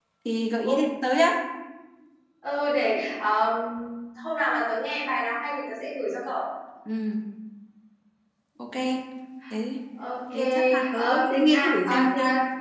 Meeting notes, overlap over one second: present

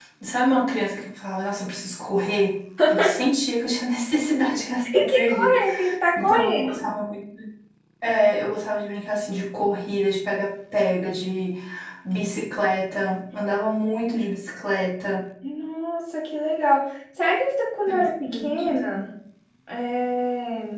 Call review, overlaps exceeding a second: present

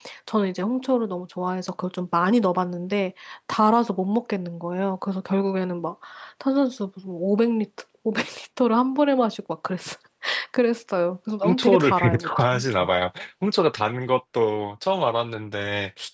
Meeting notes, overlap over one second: present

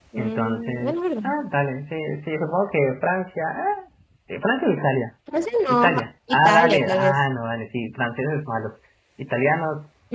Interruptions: present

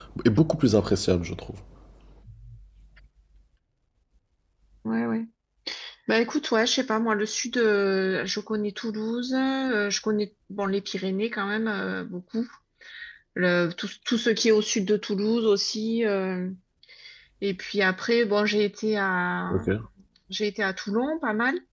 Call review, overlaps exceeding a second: none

